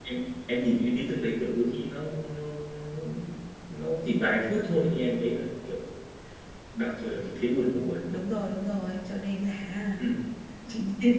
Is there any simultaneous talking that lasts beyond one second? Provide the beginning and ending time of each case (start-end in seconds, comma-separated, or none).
none